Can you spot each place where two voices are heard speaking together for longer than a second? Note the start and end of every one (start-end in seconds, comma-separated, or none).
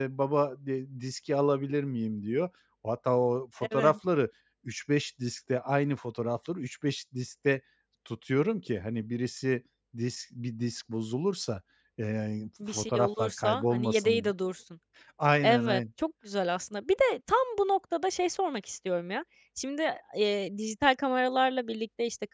12.7-14.3